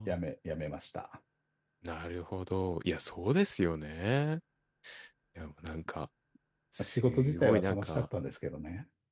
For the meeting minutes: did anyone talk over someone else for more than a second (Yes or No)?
Yes